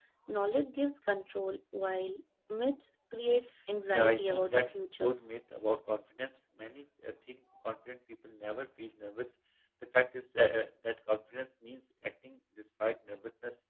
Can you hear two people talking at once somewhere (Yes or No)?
Yes